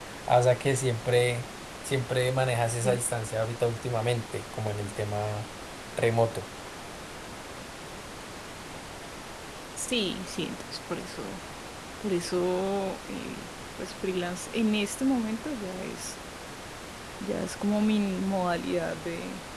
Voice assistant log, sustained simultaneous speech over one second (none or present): none